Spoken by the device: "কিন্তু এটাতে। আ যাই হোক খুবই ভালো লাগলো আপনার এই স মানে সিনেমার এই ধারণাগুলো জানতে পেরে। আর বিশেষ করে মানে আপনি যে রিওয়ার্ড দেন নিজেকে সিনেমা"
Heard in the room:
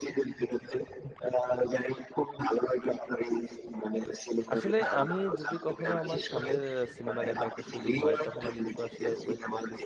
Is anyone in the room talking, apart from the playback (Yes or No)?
Yes